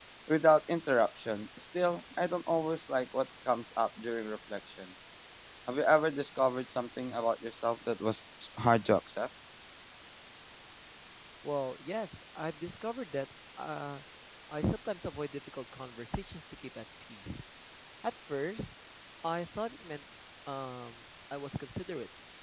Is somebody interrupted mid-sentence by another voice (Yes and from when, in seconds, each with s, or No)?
No